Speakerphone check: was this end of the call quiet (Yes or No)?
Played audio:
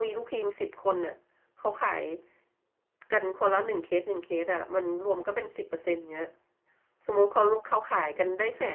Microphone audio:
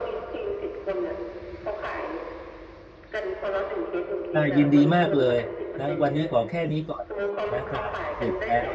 No